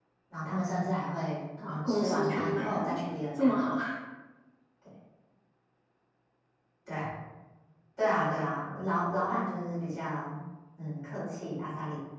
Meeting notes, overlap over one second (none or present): present